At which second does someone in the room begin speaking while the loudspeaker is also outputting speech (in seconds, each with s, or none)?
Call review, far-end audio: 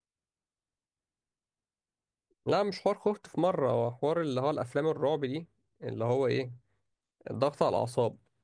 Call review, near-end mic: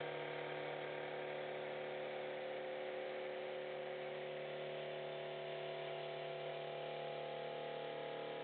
none